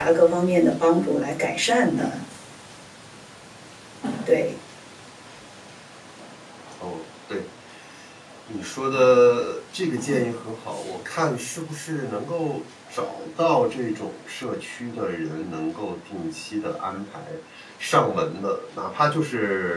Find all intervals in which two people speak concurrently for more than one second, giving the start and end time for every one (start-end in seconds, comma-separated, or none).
none